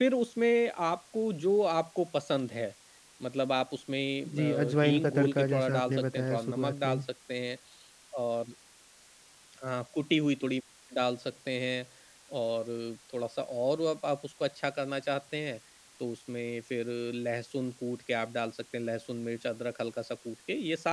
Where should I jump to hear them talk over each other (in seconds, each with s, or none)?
4.2 s